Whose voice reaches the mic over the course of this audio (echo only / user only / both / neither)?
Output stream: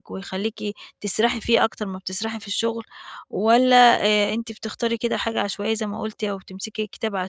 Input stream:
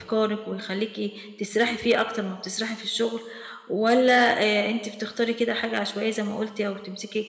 echo only